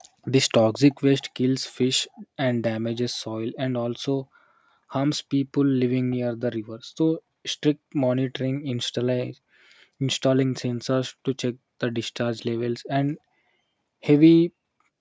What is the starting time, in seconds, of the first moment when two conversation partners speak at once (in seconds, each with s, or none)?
none